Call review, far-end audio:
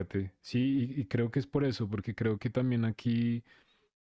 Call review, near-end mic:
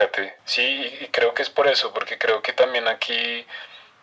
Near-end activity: none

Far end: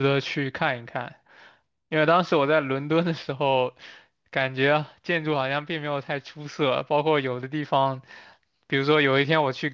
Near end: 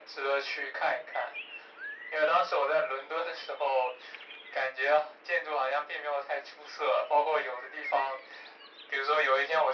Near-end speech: none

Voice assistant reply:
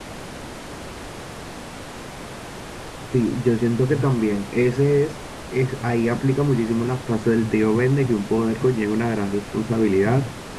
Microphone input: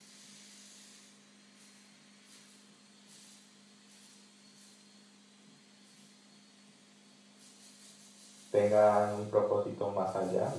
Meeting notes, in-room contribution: present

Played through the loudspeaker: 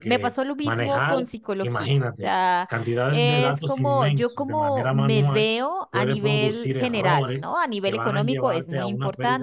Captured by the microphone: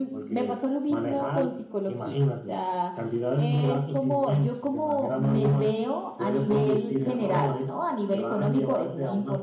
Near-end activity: none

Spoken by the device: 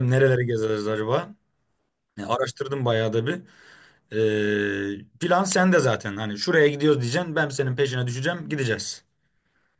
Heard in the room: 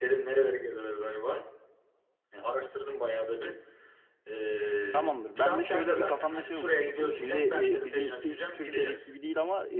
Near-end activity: present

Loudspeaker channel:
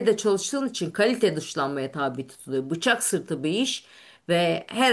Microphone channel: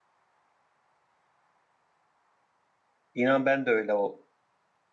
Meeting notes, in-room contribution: present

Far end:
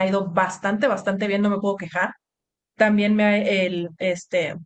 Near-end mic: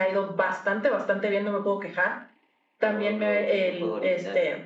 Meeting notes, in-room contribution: present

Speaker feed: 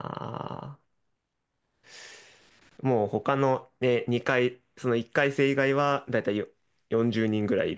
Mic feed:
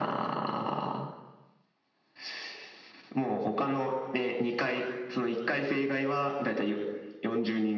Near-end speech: none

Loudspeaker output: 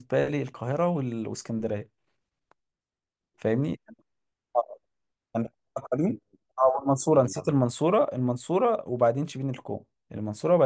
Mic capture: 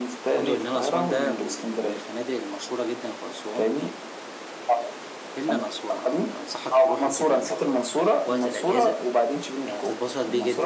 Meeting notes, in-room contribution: present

